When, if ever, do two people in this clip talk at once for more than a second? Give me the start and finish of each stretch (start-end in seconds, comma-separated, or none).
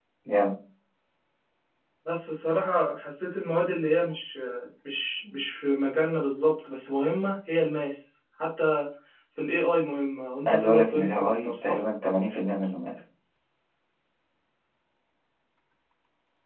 10.5-11.8